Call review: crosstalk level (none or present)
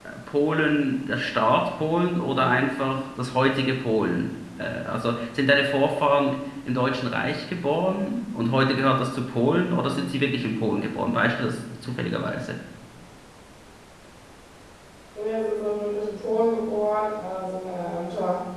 none